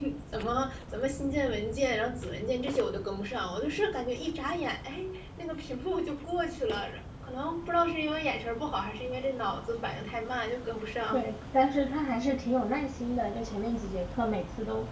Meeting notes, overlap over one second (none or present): none